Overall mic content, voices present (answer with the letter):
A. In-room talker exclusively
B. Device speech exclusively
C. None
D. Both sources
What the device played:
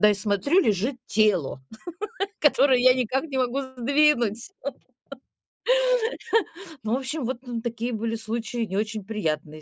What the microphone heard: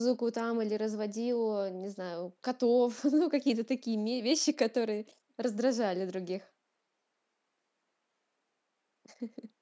A